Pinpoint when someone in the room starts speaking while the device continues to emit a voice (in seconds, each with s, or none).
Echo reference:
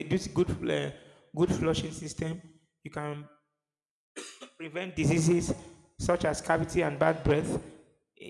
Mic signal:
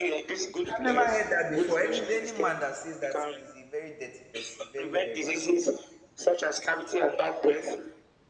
0.7 s